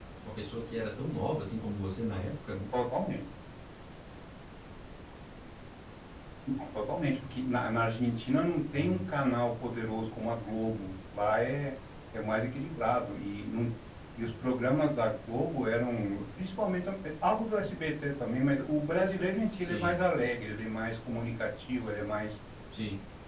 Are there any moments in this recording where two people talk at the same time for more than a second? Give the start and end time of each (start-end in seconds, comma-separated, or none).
none